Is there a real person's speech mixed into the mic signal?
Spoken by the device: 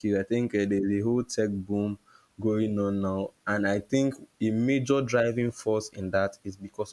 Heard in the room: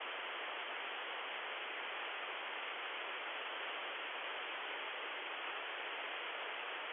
No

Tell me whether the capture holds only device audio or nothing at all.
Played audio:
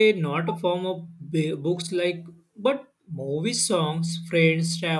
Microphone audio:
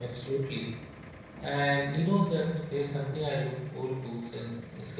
No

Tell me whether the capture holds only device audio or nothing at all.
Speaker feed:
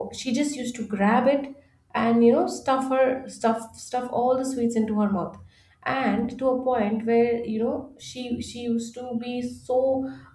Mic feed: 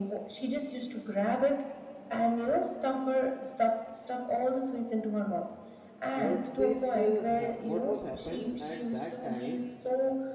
No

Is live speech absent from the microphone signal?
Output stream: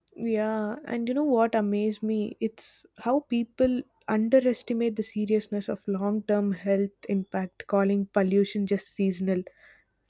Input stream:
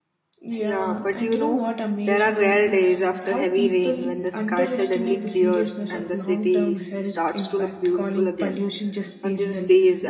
No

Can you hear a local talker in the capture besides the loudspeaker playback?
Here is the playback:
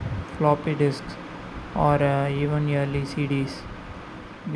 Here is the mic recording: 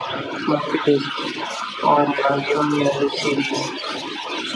No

